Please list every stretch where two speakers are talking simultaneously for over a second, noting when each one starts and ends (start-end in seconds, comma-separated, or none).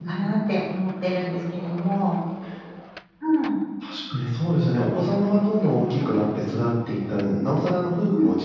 none